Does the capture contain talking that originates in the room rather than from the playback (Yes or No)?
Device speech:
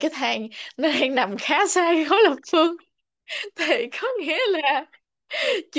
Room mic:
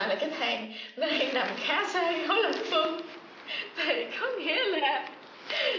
No